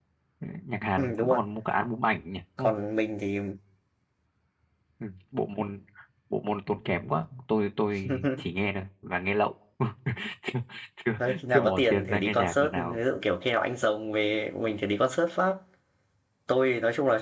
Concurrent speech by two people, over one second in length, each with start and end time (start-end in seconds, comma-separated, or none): 11.2-13.0